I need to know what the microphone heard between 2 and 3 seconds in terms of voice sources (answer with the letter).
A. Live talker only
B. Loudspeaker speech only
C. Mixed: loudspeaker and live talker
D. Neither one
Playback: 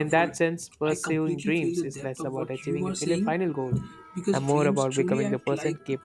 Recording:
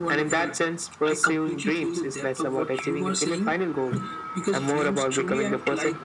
B